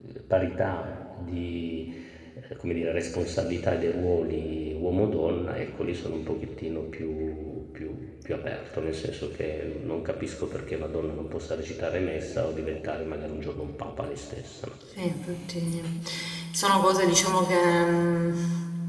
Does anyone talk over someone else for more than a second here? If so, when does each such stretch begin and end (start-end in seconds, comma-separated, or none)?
none